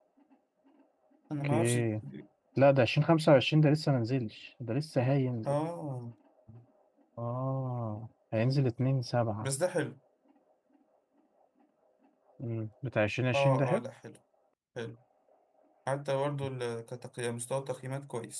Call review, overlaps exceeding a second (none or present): none